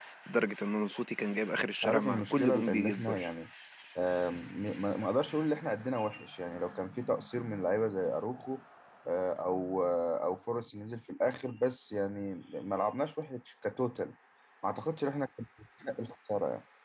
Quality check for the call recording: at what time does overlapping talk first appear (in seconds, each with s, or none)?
1.8 s